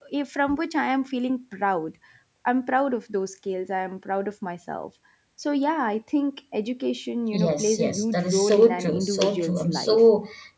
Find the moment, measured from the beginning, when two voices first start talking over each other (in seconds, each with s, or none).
7.3 s